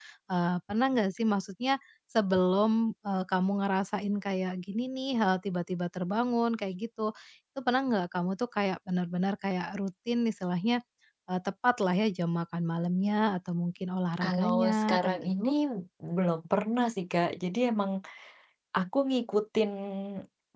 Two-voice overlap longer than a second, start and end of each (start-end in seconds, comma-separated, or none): 14.2-15.5